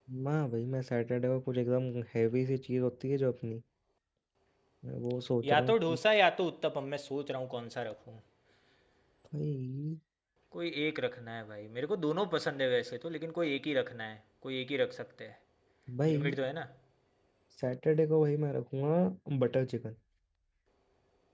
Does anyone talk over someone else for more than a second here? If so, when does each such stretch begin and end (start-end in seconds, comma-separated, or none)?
none